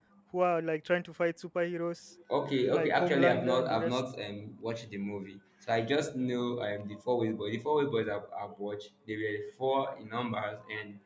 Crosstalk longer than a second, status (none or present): present